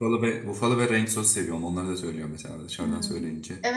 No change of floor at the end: No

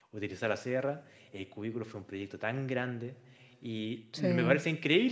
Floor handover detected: No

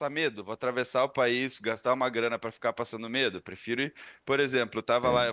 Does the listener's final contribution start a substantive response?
No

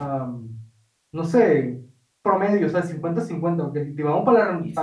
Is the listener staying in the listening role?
Yes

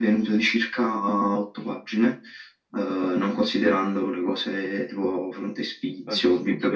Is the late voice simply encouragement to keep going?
Yes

